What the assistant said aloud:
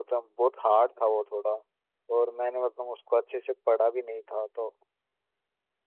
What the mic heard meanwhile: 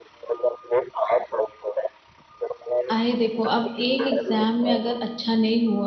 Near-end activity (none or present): present